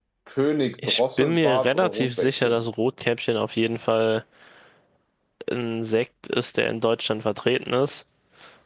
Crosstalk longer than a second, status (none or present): present